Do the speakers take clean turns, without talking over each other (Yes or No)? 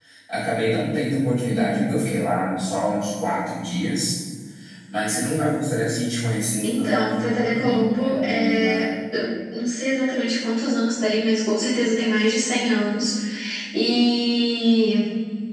No